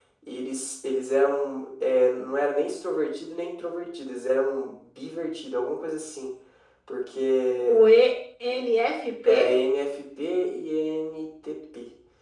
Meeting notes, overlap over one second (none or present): none